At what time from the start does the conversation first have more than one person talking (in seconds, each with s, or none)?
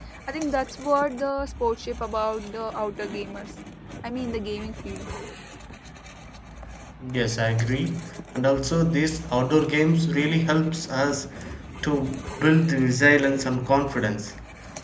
none